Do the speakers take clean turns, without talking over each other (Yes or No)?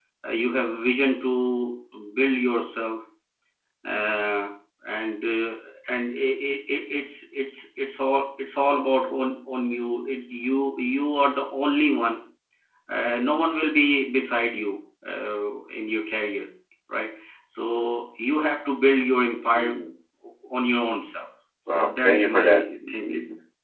No